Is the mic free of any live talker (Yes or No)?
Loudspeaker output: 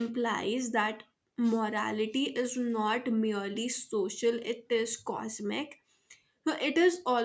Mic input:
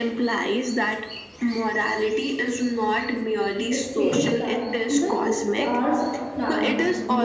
No